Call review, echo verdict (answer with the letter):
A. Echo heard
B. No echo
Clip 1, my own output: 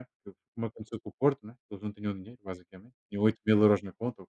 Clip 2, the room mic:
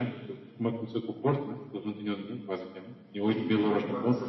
A